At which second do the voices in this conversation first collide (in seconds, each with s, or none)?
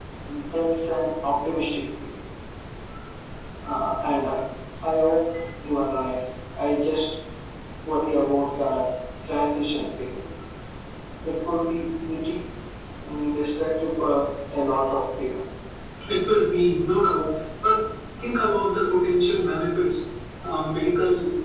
none